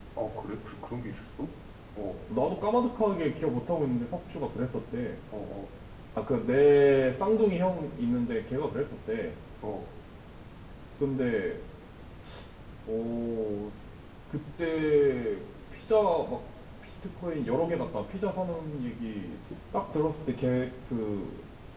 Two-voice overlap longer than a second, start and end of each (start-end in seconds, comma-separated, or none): none